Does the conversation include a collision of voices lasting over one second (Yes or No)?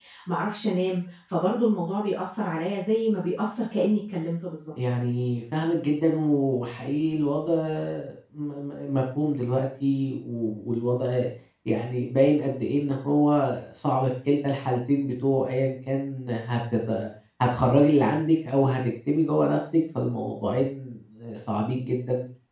No